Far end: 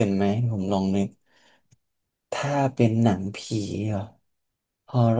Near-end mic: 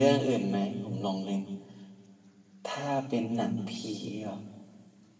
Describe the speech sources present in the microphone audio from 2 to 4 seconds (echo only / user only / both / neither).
echo only